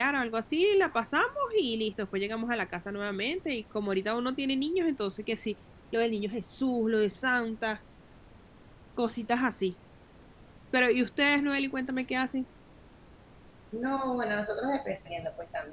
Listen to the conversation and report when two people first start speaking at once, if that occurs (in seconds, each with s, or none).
none